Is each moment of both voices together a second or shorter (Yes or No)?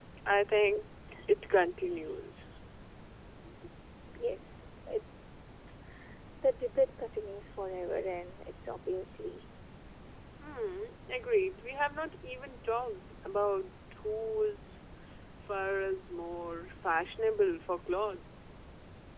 Yes